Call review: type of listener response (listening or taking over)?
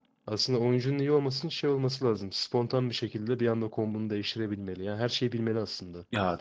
taking over